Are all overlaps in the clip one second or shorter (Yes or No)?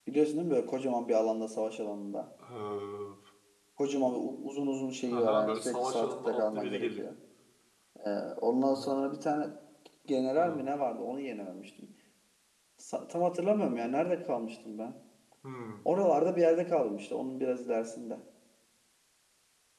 No